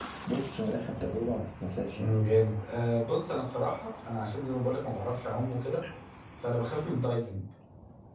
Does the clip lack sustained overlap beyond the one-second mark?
Yes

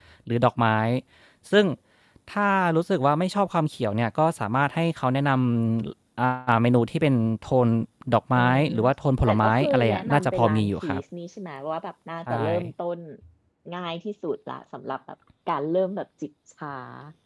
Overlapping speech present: Yes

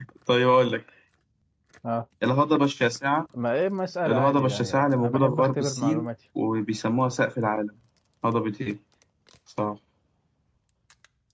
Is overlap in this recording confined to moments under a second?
No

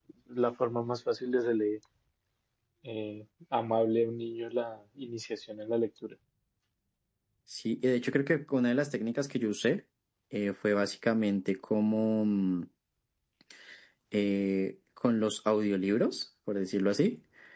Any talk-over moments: No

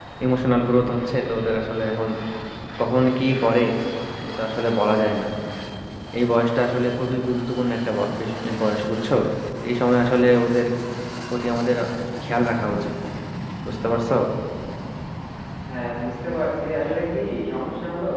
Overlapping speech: No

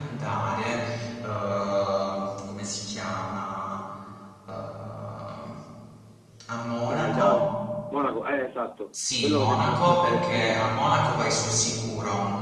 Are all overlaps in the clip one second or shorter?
No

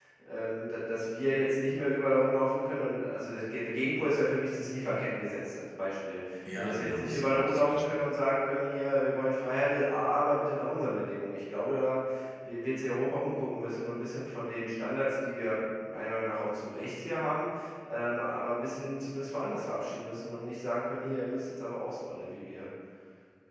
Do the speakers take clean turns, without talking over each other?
No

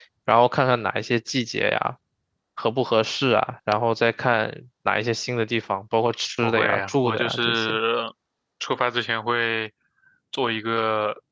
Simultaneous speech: Yes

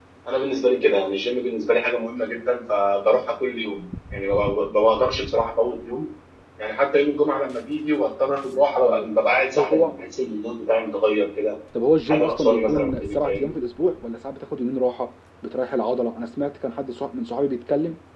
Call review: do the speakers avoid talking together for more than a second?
No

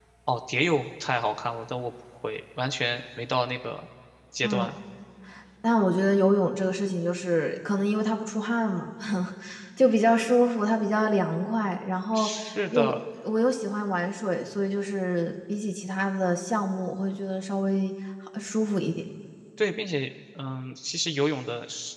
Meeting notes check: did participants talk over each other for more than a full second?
No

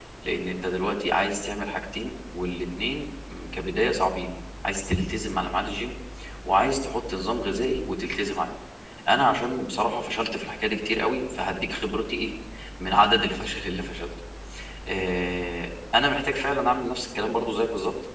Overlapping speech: No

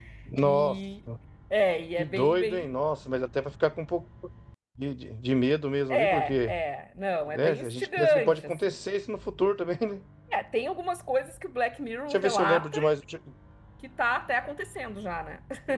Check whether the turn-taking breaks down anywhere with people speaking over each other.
Yes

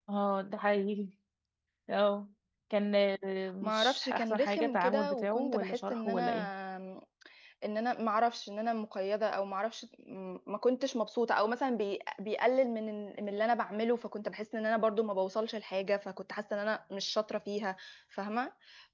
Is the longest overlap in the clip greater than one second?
Yes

